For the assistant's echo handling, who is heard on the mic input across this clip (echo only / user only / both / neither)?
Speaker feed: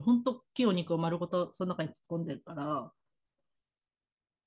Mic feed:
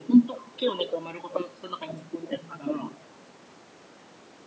echo only